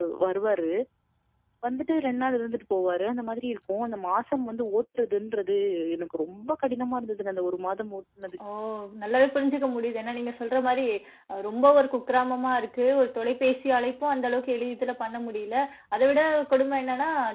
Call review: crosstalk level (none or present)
none